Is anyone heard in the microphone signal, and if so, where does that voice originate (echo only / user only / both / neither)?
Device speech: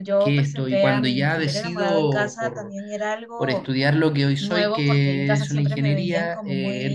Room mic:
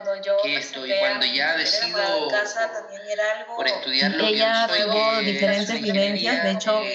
both